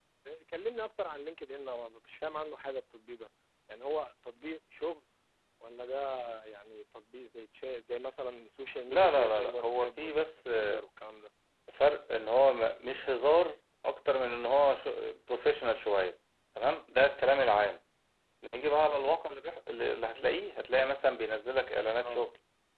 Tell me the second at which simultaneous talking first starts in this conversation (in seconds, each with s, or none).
8.9 s